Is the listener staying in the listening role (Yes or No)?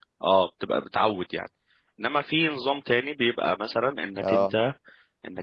Yes